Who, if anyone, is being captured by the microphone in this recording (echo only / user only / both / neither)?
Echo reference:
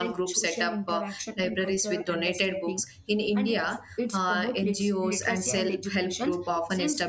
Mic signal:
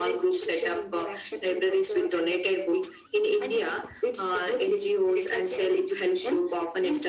echo only